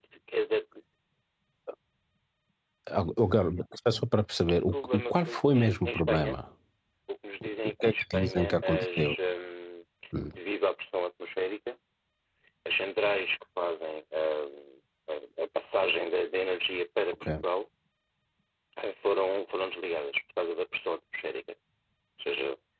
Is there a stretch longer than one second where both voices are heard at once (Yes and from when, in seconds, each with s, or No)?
Yes, from 4.6 s